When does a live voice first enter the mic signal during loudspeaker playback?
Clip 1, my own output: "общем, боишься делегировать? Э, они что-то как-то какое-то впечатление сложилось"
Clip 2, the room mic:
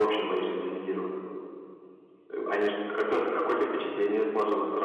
none

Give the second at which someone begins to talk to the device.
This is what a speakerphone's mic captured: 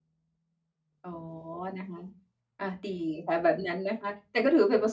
1.0 s

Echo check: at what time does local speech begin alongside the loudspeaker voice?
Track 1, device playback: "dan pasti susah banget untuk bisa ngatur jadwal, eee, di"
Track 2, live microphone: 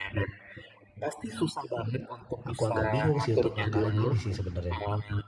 2.4 s

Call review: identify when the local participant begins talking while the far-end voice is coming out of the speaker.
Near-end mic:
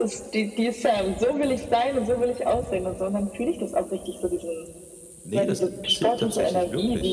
5.2 s

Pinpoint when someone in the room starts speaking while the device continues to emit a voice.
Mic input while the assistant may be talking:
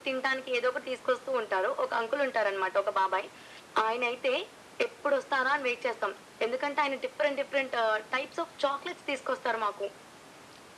none

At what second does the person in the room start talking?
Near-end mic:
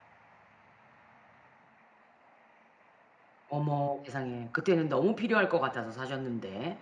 3.5 s

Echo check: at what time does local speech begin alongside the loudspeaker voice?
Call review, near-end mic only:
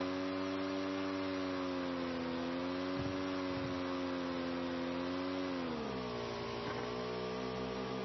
none

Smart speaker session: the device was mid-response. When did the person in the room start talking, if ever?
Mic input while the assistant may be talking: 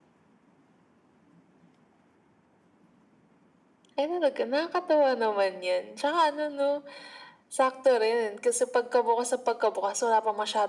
none

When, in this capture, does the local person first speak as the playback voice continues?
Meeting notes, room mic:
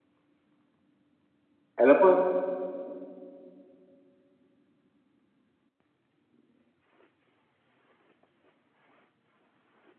1.8 s

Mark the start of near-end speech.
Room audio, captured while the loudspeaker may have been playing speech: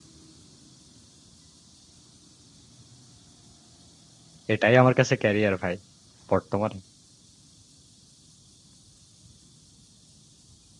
4.5 s

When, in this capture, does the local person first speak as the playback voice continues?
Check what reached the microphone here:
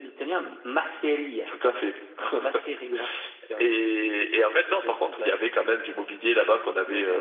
none

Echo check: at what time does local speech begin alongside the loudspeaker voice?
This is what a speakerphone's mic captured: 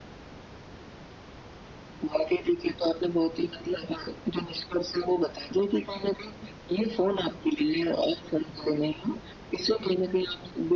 none

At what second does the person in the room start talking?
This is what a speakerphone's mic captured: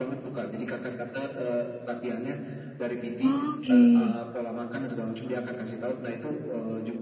3.2 s

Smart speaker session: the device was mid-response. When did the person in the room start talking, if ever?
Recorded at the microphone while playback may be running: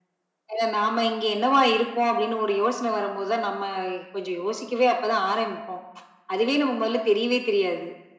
none

